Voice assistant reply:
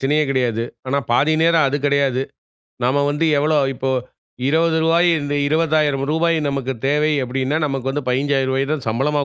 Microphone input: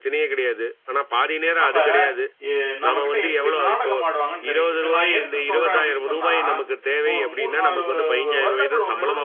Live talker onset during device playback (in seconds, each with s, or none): 1.6 s